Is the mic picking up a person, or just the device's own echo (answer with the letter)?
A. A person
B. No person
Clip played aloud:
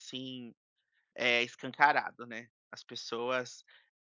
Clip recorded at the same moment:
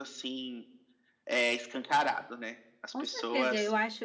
A